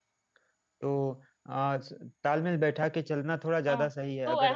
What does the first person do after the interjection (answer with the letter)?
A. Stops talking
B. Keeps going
A